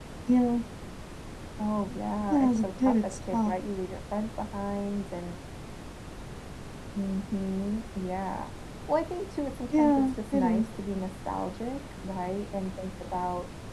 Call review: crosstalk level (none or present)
present